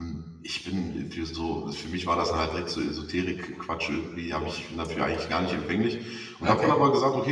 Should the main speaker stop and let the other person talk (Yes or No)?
No